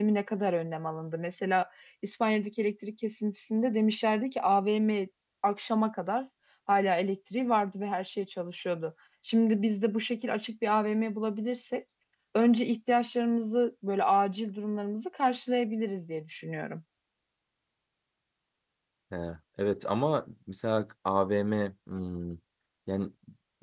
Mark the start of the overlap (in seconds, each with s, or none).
none